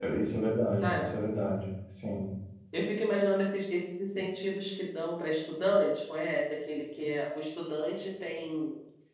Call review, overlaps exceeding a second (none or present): none